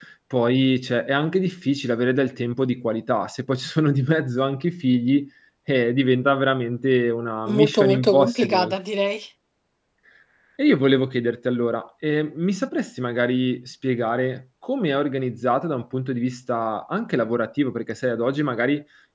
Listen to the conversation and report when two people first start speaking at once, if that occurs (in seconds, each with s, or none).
7.5 s